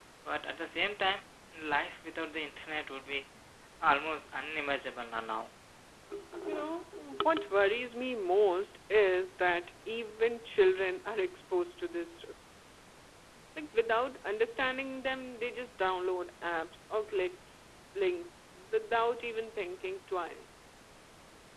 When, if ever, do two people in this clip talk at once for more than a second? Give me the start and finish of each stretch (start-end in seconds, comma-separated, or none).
none